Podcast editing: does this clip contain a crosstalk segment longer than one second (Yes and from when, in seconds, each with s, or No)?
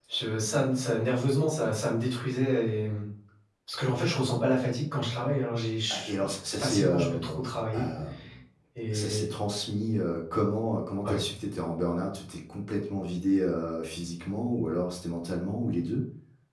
Yes, from 5.9 s